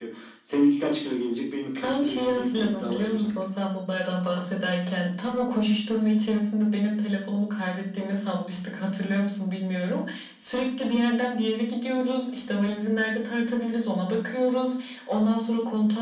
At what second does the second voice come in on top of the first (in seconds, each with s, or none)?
1.8 s